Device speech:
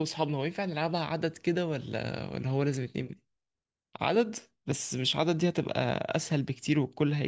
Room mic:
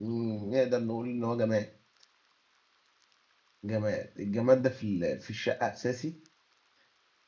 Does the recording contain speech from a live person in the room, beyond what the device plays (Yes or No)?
Yes